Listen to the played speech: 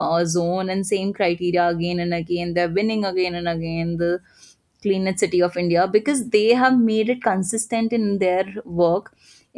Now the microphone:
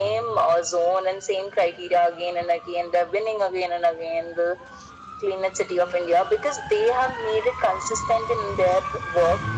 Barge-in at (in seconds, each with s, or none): none